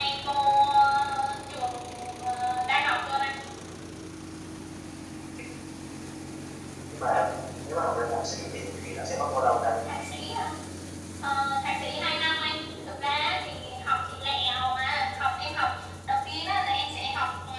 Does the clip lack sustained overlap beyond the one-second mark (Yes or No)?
Yes